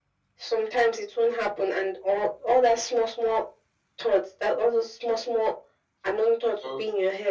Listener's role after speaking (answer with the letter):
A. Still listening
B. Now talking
A